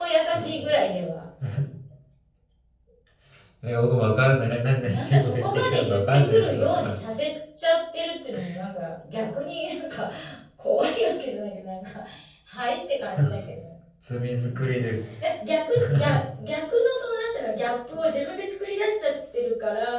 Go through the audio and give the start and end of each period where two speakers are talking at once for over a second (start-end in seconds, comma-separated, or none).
4.8-6.8